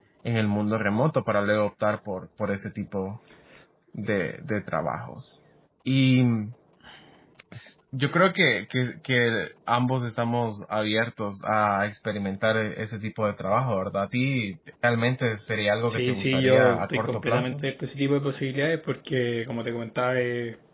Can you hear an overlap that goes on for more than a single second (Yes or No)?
Yes